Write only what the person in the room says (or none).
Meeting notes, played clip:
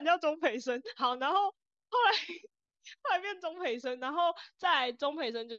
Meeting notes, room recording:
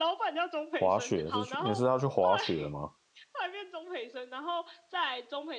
滑雪是去，你是要去滑雪吗？